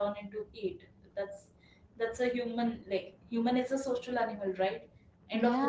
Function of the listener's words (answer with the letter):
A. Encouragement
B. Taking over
A